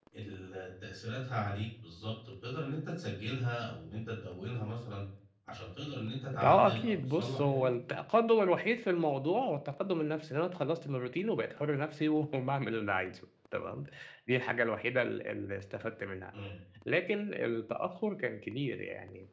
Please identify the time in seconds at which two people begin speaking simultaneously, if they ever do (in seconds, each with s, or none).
6.3 s